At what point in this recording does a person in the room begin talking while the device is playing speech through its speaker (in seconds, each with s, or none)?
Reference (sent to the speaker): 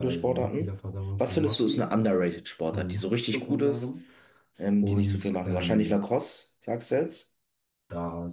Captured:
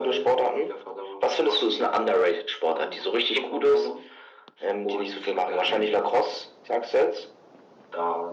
none